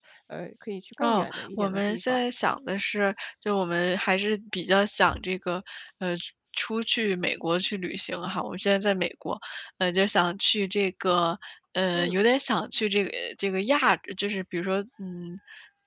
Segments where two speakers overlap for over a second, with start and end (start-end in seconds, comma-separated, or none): 1.0-2.2